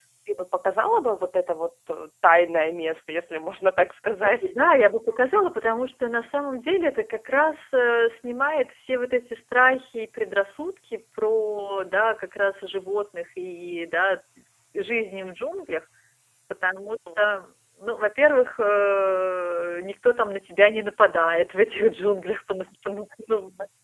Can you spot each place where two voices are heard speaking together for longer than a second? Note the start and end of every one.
none

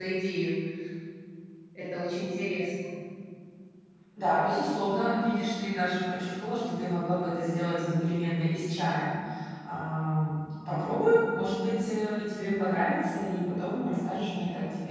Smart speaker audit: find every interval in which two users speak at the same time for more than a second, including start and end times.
none

